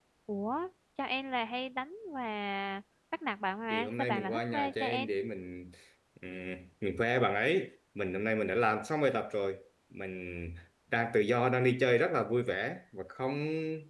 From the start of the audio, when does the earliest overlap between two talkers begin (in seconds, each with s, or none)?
3.7 s